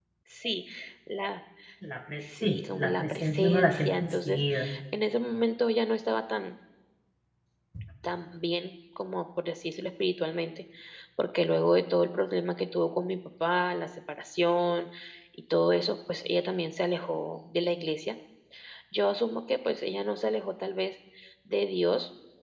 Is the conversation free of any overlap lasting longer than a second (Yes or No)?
No